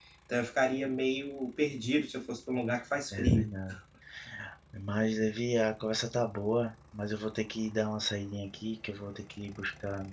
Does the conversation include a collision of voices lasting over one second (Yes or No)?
No